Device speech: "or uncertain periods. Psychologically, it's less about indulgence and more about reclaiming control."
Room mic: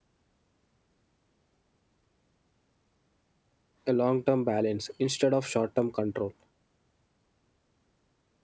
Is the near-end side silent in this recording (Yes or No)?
No